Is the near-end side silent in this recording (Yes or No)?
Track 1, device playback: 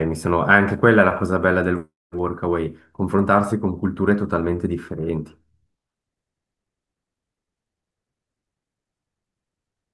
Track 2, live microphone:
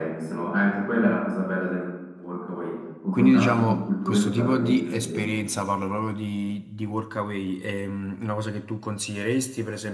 No